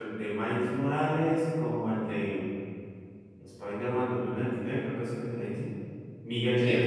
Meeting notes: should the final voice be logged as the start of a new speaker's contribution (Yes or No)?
No